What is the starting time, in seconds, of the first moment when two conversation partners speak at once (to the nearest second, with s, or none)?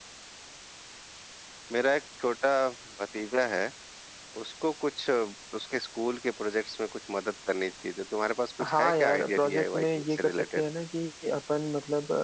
9 s